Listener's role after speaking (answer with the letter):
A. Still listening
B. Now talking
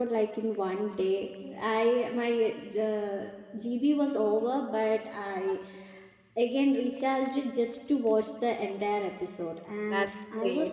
A